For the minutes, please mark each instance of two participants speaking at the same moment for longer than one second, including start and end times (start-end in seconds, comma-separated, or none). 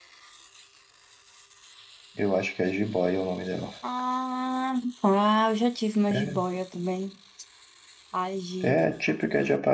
none